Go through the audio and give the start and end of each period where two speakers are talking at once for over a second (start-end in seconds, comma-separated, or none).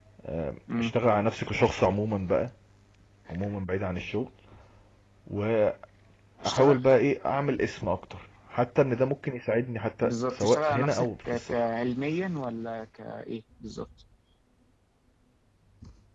10.0-11.7